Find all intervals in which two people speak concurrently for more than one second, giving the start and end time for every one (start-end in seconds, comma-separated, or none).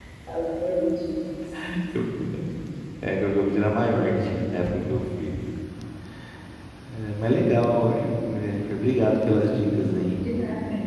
none